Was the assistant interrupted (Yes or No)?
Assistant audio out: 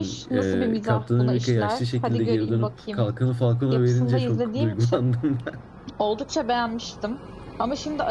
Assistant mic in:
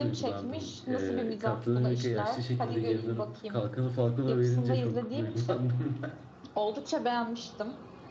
No